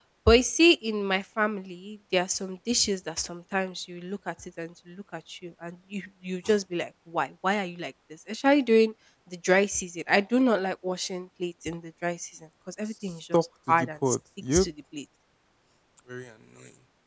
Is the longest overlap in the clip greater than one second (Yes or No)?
Yes